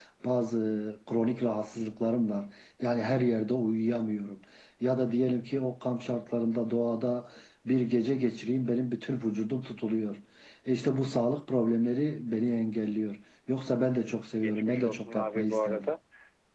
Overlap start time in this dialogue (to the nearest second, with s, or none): 14 s